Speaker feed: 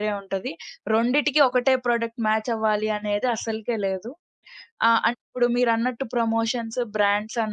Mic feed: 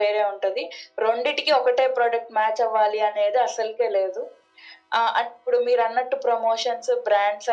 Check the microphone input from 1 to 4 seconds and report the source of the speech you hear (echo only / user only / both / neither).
echo only